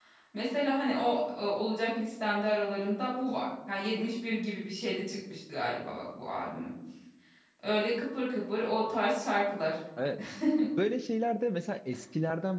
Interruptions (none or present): none